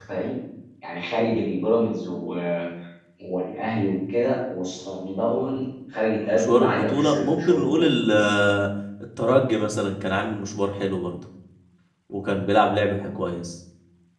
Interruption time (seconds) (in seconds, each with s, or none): 6.2 s